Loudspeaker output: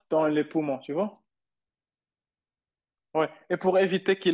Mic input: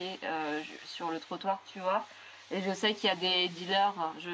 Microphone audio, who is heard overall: user only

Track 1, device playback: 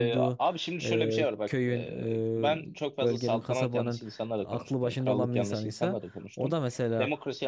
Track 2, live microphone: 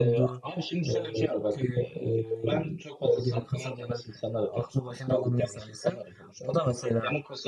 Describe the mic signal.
echo only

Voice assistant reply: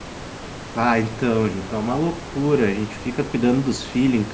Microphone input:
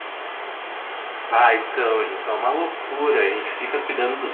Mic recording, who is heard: echo only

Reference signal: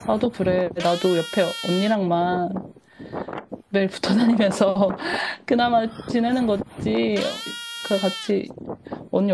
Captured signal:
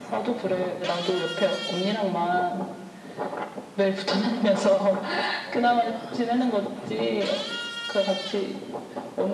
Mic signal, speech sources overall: both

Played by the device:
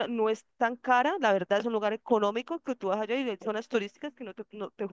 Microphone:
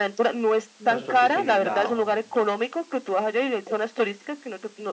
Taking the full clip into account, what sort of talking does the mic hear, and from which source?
both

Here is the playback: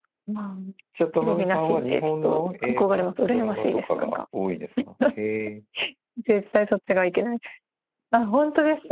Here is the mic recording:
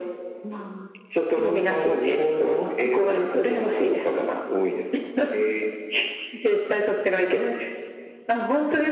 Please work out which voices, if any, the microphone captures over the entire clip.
echo only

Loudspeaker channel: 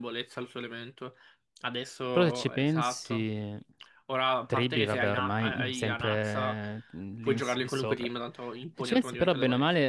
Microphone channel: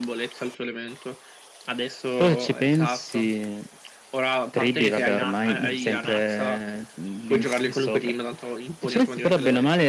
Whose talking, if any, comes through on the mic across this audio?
echo only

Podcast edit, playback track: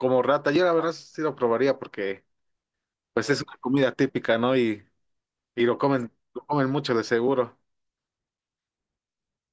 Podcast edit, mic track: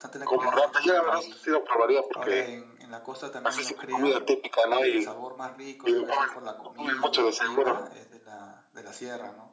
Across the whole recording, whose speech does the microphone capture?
both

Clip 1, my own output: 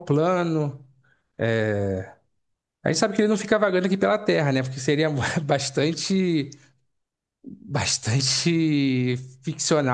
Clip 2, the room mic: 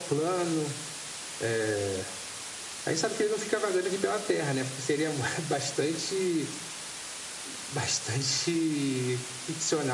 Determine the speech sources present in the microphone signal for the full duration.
echo only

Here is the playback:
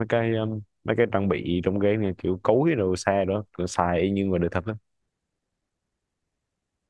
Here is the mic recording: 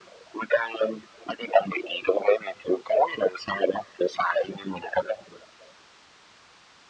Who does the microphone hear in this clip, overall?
echo only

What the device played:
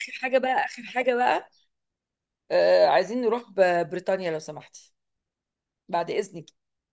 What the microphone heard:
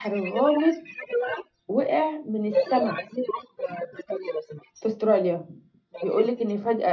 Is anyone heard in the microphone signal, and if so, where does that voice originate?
both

